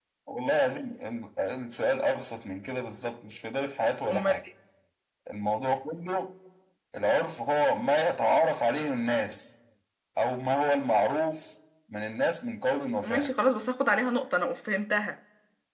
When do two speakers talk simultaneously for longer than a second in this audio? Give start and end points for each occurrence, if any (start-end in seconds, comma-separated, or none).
none